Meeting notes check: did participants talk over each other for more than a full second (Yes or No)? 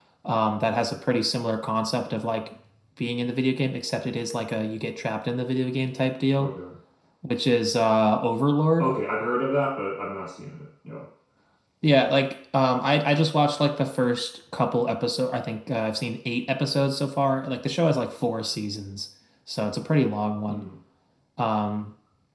No